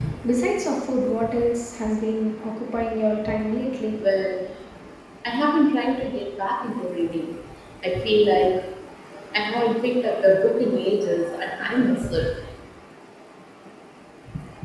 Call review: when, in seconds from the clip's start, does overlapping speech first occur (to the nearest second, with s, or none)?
none